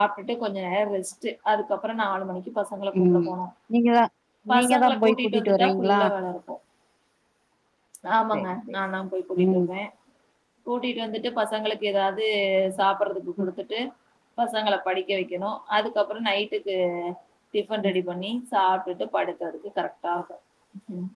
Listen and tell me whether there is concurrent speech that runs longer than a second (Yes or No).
Yes